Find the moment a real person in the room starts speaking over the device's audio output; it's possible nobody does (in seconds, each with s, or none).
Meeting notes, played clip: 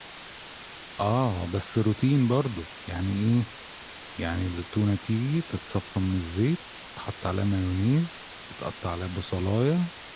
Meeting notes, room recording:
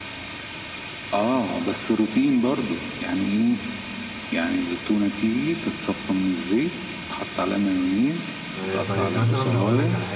8.5 s